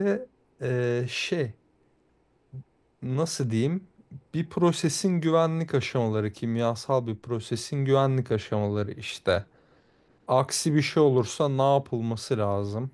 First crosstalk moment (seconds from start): none

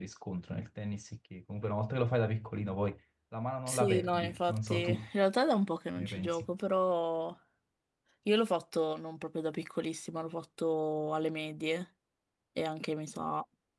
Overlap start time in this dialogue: 3.7 s

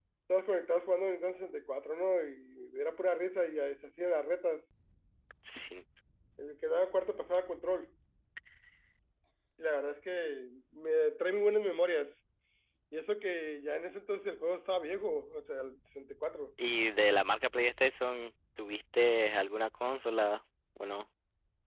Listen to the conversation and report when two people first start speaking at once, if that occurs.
none

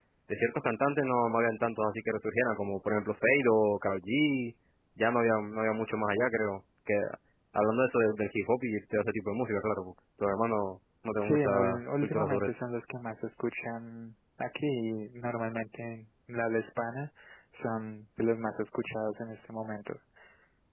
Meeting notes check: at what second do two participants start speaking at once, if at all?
11.2 s

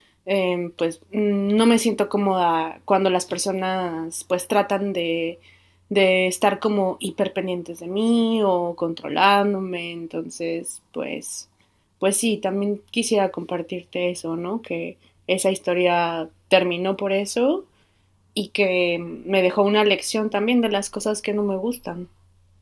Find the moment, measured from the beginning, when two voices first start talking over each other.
none

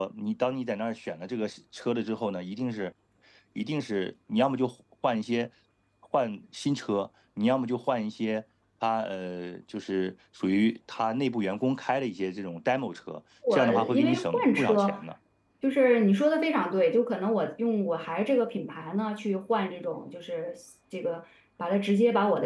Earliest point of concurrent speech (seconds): 13.4 s

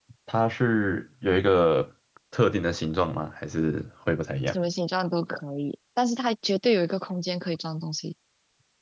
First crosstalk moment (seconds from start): none

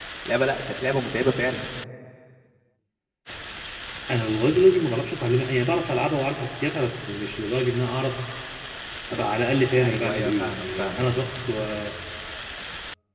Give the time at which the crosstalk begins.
9.8 s

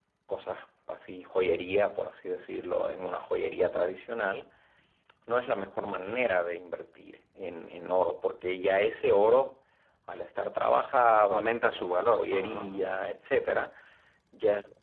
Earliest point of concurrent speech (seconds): 11.3 s

